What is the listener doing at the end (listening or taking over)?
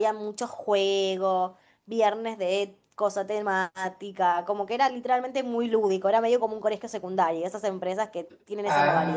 taking over